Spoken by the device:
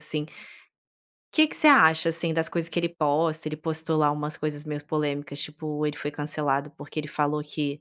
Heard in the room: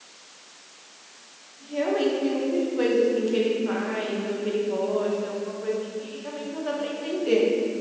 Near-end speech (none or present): present